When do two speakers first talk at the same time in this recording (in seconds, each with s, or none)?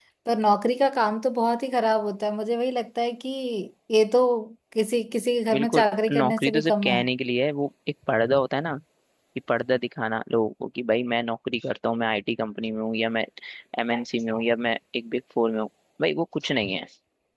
5.5 s